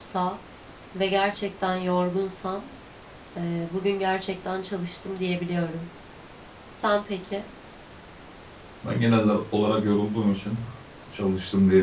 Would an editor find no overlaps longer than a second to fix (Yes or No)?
Yes